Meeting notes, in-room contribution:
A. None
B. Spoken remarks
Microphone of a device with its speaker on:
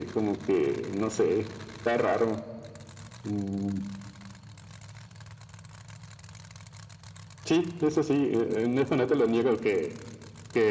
A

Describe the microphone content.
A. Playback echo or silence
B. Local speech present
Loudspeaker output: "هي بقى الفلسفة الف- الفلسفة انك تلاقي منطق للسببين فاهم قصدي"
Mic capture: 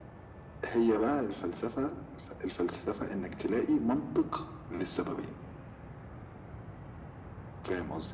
A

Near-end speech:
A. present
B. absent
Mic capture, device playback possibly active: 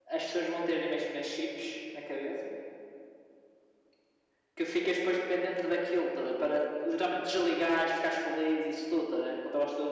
B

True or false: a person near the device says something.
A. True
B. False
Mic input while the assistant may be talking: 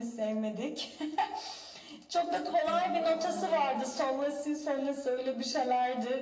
A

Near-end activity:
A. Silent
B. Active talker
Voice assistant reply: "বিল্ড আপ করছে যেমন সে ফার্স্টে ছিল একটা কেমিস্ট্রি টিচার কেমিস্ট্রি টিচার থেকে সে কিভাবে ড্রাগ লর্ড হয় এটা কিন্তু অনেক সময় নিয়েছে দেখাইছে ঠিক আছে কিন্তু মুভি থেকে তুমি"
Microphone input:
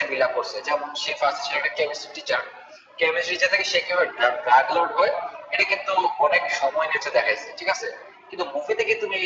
A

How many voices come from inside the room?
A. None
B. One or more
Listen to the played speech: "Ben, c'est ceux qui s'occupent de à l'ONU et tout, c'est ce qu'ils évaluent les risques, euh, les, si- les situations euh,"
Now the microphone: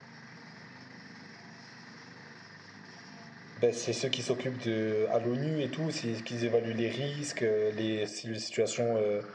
A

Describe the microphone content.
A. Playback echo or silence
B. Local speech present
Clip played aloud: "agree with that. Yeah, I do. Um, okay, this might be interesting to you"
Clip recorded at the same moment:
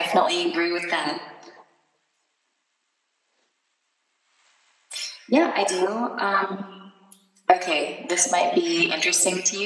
A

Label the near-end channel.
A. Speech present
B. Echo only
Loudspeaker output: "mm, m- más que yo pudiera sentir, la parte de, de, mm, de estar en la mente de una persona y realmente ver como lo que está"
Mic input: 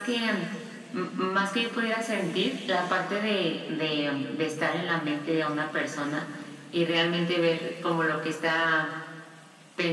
B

